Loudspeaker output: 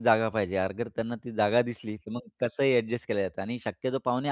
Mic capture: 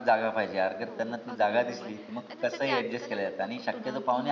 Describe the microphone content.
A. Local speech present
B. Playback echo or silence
A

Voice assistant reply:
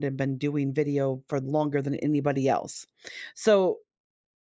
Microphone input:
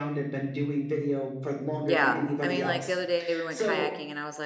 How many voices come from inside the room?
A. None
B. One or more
B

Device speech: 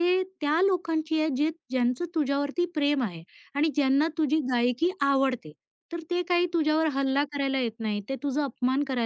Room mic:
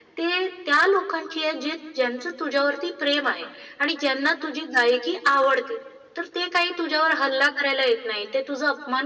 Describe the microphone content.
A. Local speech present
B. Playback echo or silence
B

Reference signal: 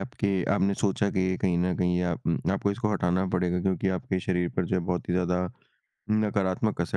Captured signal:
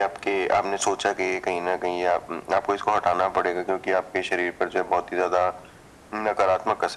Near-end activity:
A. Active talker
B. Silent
B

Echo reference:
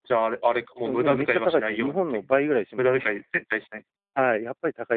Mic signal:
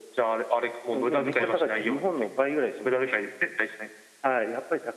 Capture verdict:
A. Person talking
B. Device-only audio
A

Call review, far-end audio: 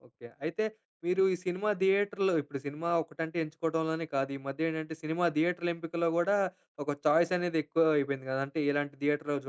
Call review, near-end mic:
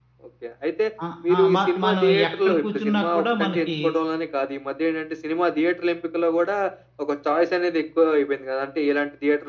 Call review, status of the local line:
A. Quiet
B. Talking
B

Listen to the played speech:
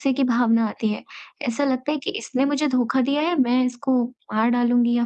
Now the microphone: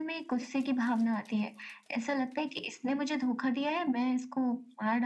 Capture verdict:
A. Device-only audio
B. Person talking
A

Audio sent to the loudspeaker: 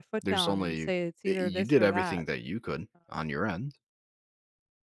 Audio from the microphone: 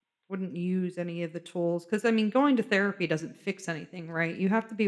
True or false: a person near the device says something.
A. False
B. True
B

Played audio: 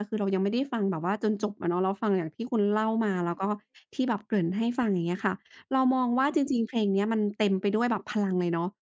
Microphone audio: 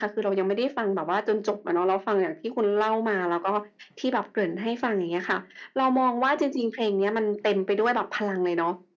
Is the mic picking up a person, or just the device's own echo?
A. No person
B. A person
A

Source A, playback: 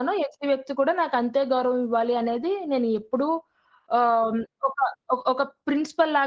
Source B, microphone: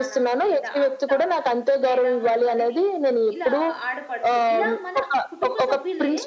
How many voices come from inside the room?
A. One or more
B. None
A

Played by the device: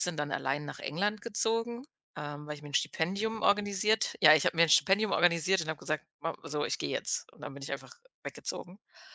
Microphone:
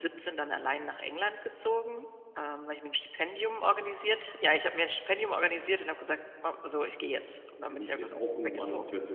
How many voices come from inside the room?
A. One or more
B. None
A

